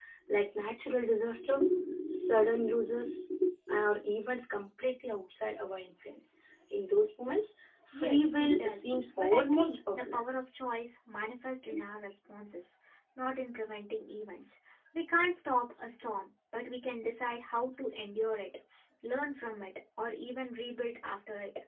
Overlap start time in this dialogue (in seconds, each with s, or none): 7.9 s